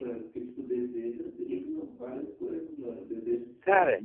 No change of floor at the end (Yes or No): Yes